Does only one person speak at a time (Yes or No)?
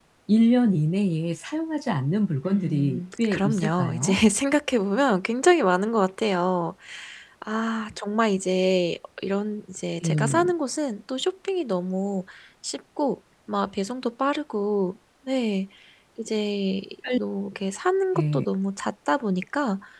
No